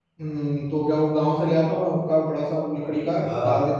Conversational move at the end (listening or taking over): taking over